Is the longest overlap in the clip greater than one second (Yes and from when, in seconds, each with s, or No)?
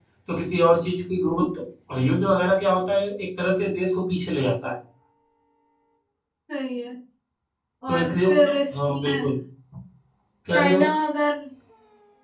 Yes, from 7.9 s